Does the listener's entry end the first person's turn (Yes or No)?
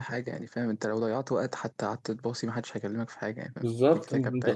Yes